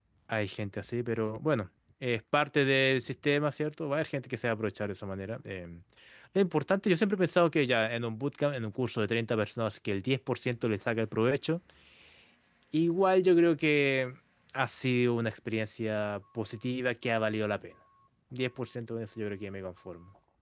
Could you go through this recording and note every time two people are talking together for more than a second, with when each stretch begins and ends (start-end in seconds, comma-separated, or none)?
none